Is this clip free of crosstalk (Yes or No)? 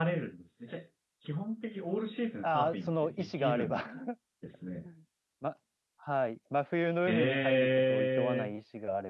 No